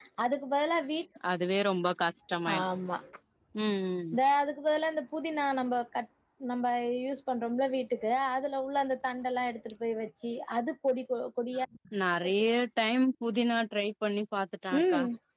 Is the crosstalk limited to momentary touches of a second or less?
Yes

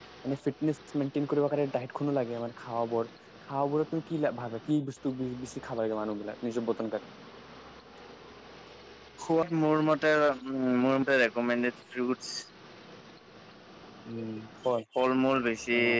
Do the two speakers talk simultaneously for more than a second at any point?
No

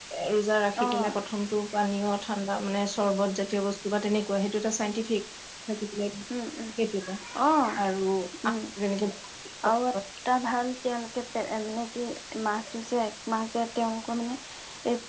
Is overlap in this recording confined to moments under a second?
Yes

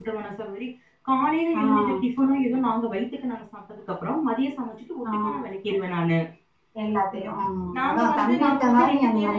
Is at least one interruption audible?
Yes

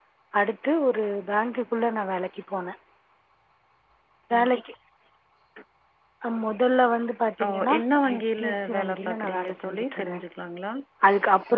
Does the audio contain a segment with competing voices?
Yes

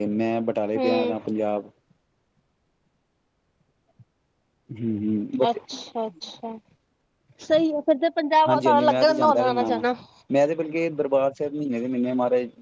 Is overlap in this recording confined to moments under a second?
No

